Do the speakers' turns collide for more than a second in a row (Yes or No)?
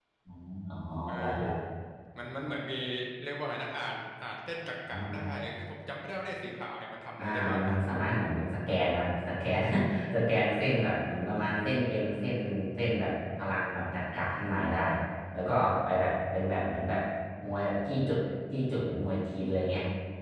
No